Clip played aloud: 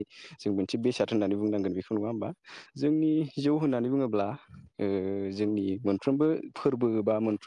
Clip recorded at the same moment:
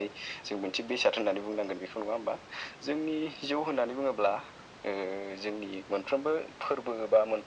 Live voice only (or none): none